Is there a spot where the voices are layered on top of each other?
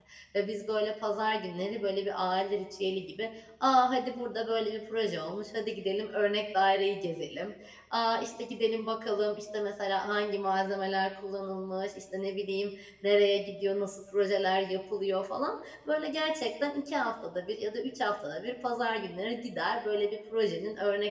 No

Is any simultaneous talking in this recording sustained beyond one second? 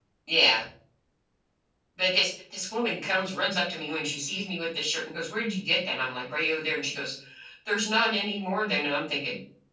No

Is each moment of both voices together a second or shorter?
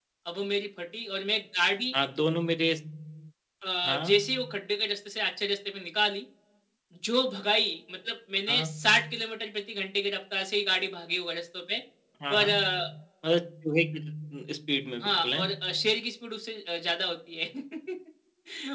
Yes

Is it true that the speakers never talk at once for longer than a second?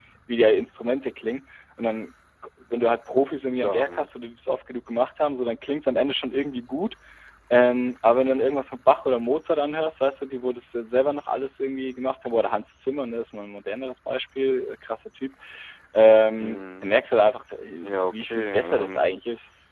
No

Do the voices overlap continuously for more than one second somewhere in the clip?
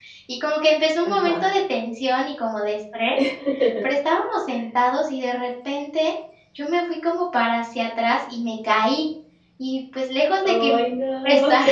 No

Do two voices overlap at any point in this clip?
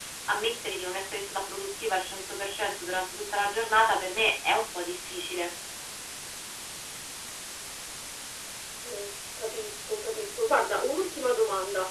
No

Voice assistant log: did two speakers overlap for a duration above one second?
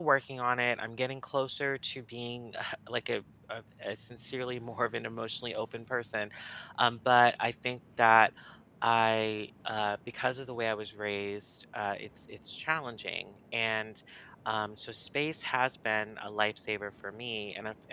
No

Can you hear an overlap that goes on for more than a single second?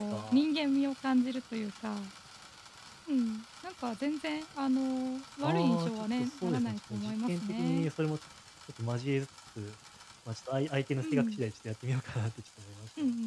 Yes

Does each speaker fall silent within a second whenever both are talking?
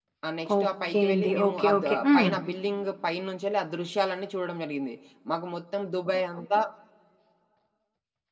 No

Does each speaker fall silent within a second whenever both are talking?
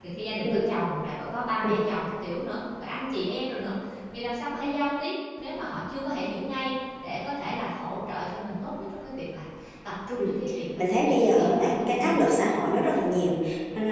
No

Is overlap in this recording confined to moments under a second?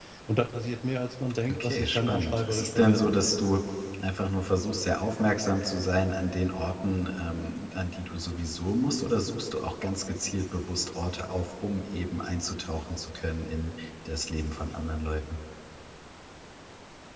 No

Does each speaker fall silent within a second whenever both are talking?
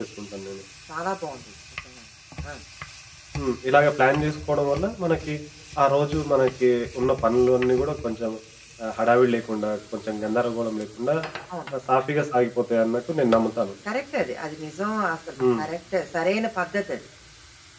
Yes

